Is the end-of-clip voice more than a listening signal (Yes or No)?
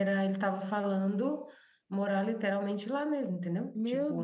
Yes